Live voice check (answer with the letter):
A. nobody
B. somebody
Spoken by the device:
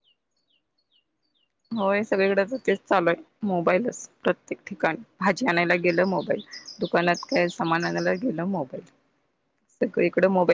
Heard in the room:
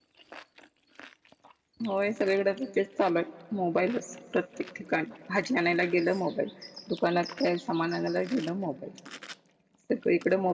A